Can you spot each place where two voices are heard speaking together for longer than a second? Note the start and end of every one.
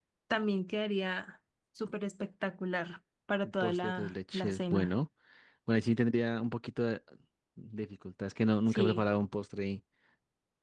3.6-4.9

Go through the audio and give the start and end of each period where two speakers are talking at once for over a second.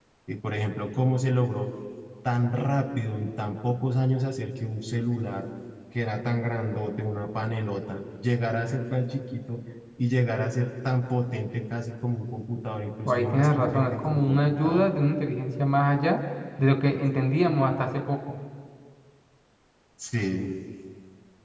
13.1-14.9

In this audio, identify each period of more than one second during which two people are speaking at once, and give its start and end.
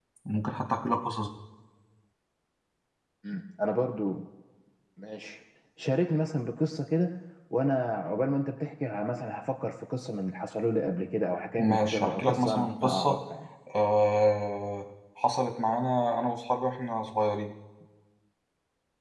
11.6-13.2

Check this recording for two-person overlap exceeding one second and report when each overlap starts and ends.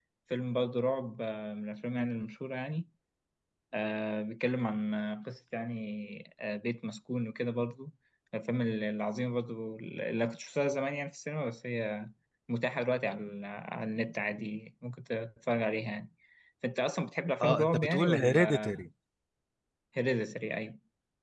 17.4-18.7

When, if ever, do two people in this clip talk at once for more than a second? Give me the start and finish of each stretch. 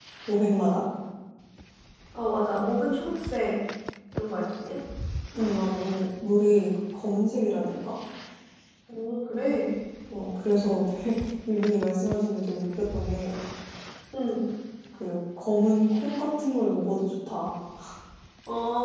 none

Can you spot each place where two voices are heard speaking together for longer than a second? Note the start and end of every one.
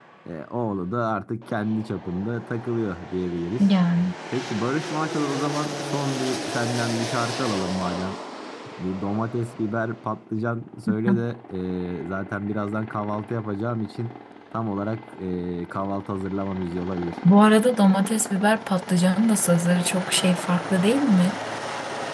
none

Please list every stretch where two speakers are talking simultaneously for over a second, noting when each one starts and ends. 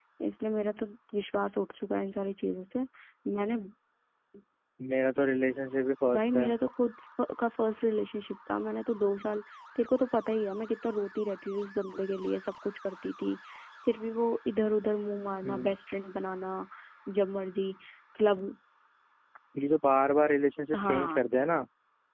none

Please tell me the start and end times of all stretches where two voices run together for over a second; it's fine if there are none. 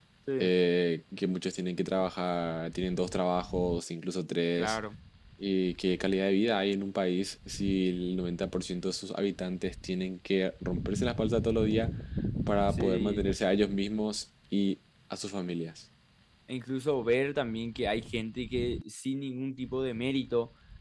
none

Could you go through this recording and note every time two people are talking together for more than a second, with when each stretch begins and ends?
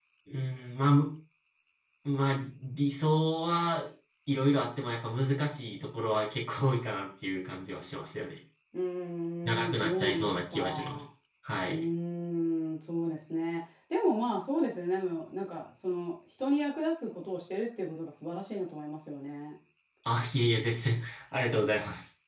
9.4-11.0

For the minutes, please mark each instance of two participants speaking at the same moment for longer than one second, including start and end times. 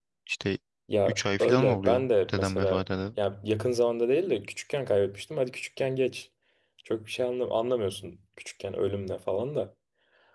1.1-2.8

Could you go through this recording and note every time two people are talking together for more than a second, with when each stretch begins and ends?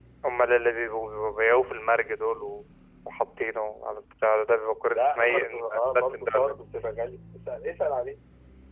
4.9-6.6

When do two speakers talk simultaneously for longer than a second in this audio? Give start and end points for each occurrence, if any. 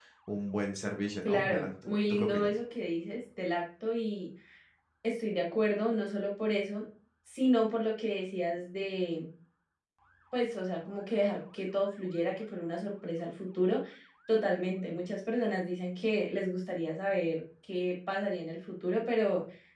1.2-2.5

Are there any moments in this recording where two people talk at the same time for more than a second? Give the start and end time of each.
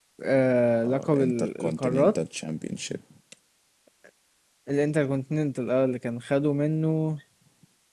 0.8-2.2

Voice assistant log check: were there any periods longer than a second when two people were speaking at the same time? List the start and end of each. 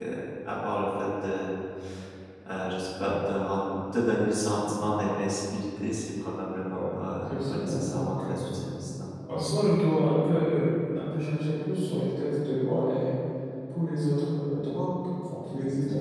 6.7-8.3

